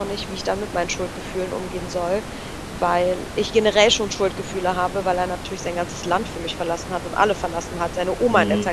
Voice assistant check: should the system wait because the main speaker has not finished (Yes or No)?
Yes